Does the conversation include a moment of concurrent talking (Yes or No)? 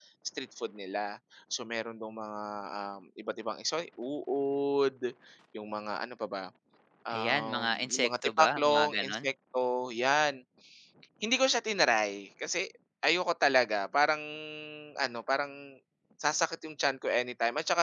Yes